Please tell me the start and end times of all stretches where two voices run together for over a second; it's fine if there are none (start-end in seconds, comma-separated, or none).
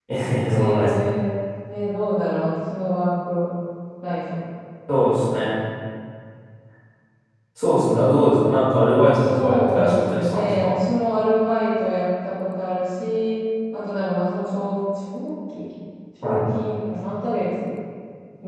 9.4-10.7